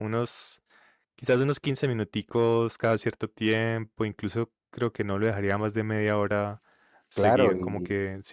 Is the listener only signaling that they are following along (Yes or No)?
No